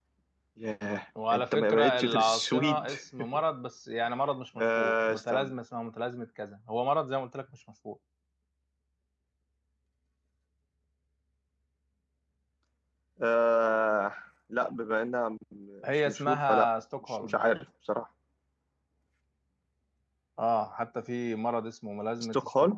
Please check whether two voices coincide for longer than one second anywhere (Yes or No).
Yes